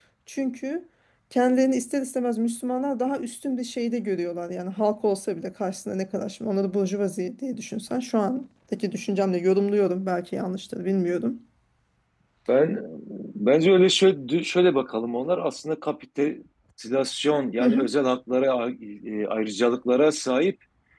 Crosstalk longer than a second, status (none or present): none